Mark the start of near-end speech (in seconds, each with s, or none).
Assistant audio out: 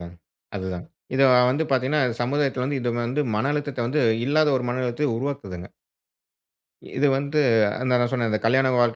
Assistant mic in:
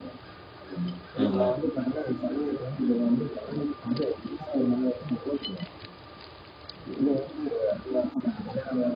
1.2 s